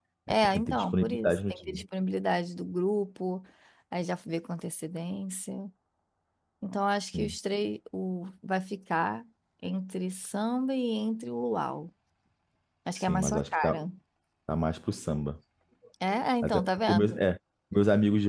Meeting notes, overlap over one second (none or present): present